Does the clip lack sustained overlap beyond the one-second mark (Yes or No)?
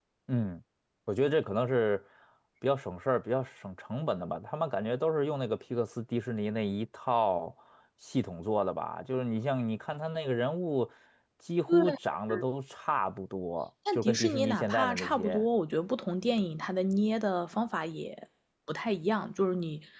No